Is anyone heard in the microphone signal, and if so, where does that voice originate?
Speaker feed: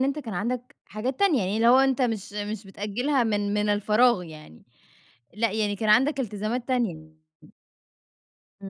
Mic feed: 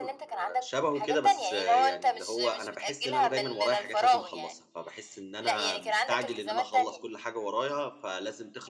both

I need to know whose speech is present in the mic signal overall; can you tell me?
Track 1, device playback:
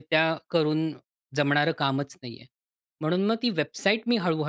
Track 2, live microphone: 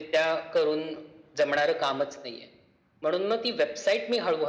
echo only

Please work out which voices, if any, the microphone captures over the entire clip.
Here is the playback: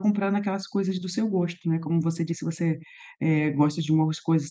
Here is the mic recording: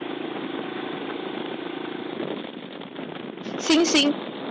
user only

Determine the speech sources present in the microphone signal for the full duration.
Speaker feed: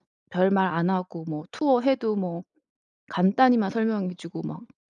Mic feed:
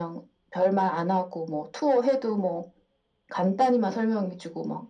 echo only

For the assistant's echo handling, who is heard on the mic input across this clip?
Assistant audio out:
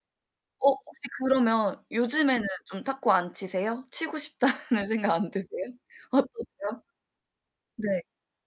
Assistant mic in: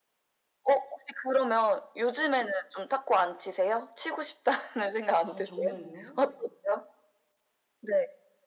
both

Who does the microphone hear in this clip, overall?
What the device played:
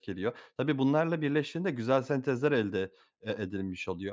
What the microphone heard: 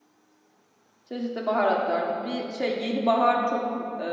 user only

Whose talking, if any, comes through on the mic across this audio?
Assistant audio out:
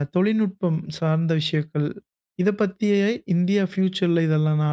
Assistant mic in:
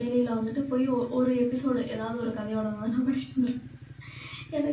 user only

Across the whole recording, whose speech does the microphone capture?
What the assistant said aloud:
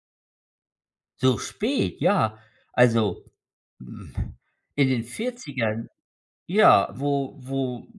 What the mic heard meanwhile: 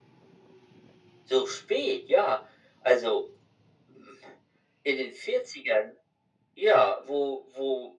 echo only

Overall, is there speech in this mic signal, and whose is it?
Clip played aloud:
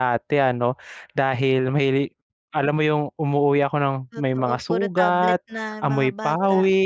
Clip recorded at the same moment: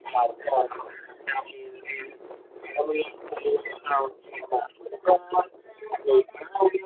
echo only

